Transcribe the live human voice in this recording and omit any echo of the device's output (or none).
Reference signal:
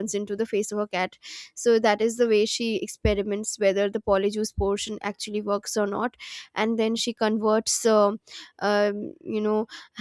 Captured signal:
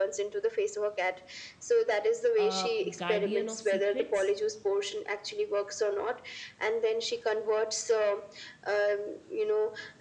a guardian of secrets,